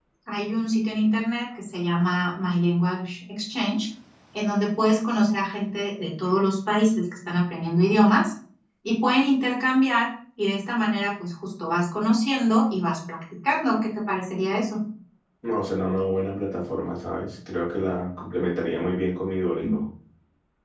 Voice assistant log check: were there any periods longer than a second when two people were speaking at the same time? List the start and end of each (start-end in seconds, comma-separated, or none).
none